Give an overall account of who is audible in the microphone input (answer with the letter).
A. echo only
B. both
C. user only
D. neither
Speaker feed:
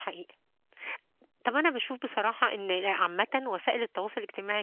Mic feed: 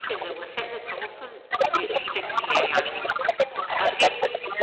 B